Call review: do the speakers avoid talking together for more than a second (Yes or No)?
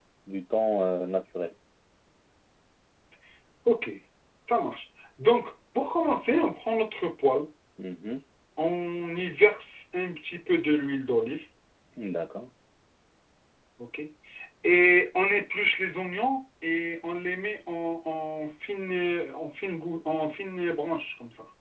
Yes